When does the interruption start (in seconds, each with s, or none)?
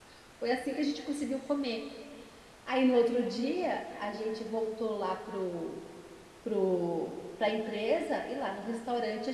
none